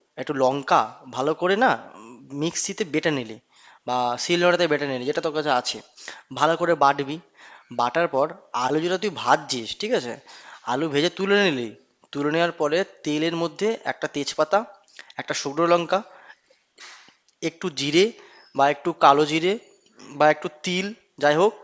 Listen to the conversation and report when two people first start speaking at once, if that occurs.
none

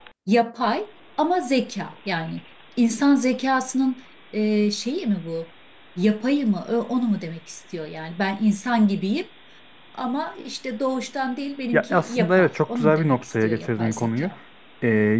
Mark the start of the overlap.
11.7 s

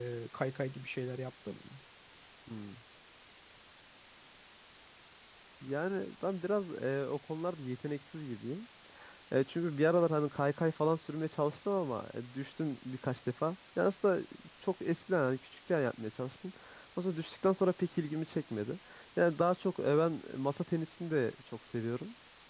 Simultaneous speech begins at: none

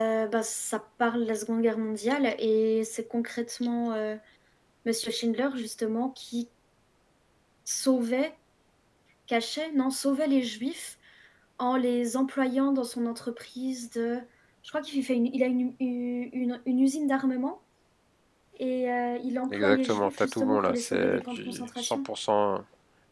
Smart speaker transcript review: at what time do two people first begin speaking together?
19.5 s

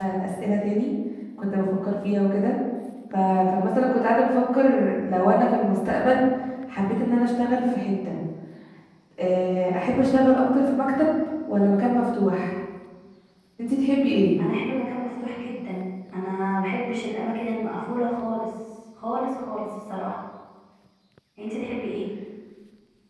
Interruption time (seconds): none

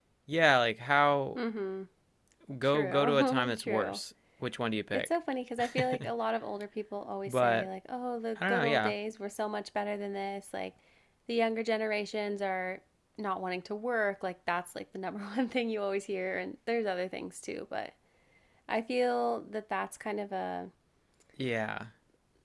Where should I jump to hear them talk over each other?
2.6 s

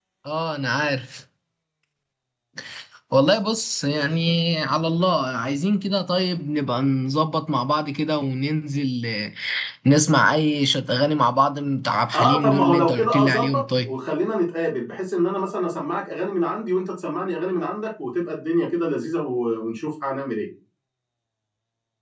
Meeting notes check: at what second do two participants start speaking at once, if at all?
12.1 s

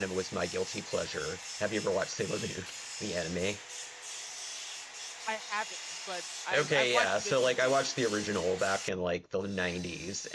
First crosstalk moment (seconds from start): 6.5 s

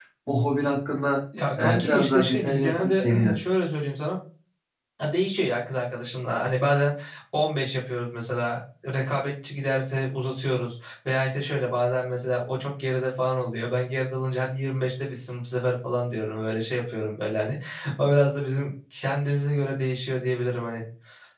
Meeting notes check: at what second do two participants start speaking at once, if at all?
1.6 s

